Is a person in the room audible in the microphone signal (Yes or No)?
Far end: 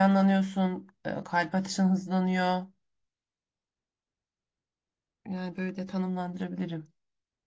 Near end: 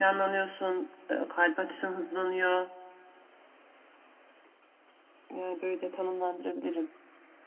No